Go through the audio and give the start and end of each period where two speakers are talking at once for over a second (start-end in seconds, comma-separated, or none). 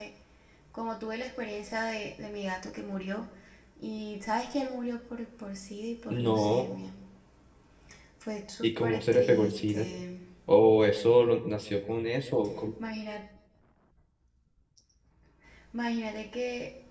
8.6-9.9